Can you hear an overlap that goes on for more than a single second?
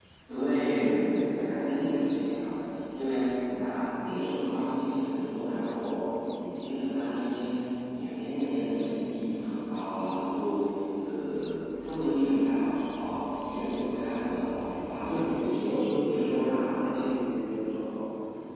Yes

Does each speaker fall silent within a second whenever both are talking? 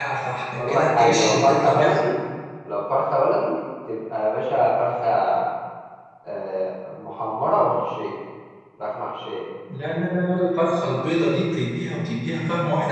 No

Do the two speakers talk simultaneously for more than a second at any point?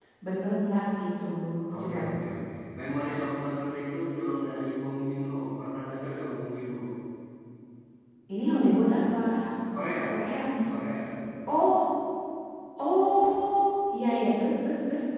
No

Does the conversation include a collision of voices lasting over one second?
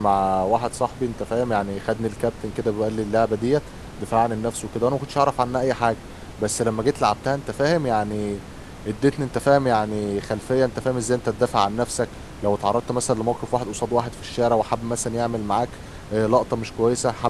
No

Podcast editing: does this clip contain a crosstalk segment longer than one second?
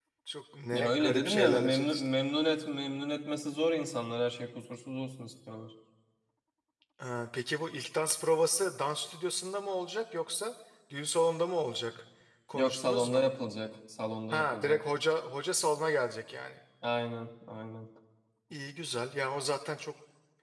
Yes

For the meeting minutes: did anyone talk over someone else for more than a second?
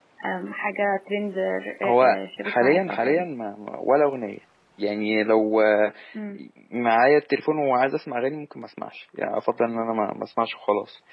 Yes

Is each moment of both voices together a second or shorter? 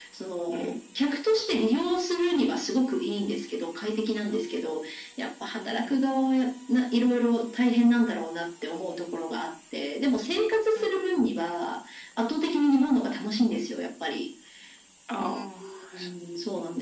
Yes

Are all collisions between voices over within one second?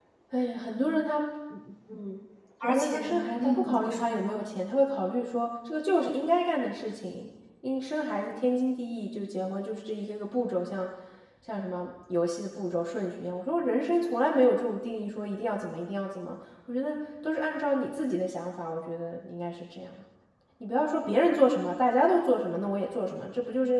No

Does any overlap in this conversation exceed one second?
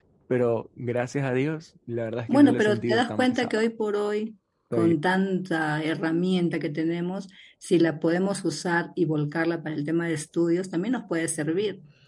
Yes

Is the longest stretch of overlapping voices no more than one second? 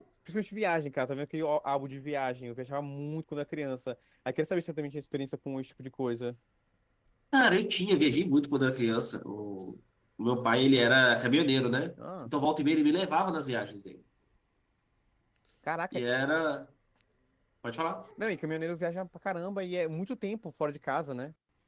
Yes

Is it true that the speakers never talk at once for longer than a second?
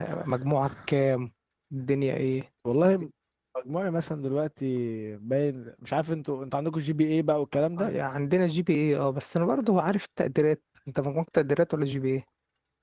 Yes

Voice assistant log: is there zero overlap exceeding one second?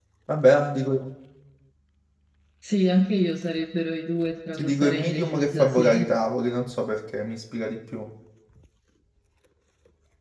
No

